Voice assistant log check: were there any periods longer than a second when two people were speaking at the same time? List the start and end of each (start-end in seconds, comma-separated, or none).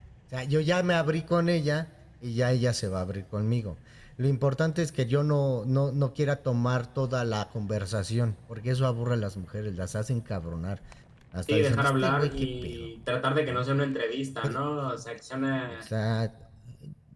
11.5-12.9